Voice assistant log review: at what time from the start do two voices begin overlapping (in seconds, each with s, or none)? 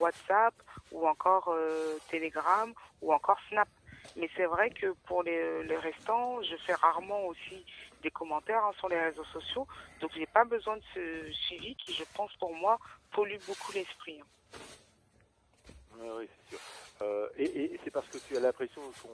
none